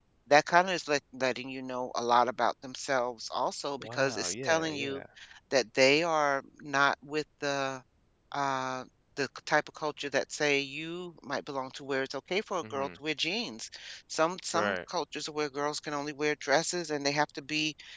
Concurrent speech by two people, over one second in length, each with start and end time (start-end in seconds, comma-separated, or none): 3.8-5.0